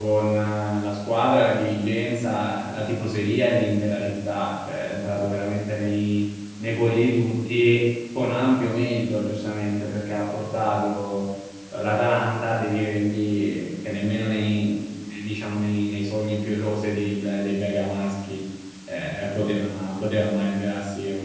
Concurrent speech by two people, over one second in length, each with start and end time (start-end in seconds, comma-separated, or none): none